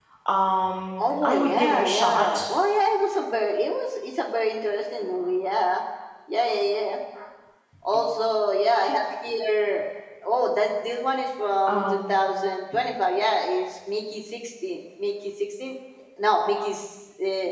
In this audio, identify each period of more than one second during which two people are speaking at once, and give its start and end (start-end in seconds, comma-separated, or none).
1.0-2.4